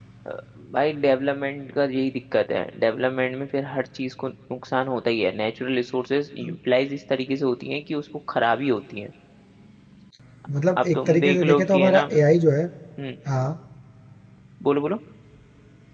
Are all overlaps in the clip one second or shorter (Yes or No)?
No